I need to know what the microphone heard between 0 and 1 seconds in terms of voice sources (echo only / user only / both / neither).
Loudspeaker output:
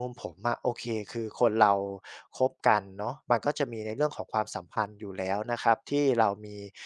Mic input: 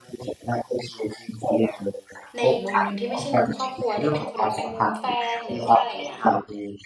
echo only